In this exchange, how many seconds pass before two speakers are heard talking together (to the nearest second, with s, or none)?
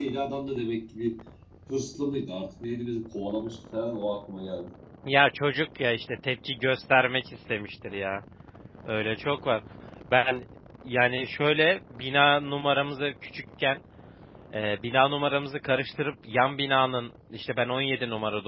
none